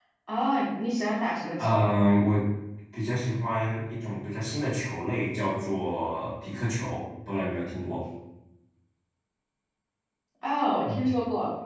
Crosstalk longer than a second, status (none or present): none